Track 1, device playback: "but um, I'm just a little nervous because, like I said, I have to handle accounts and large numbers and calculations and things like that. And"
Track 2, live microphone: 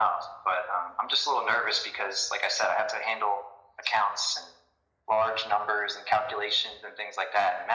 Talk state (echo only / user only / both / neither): echo only